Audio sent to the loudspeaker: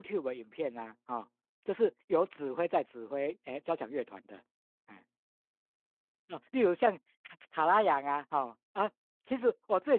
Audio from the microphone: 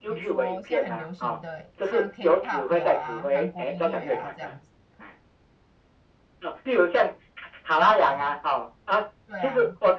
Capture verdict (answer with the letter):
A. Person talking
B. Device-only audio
A